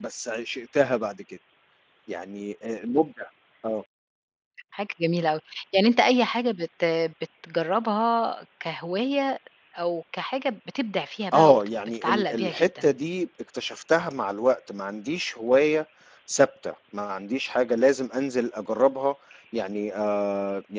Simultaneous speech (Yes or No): Yes